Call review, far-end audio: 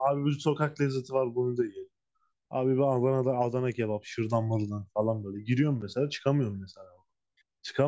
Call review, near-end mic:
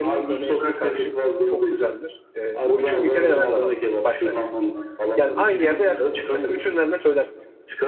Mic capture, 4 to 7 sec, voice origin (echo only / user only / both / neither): both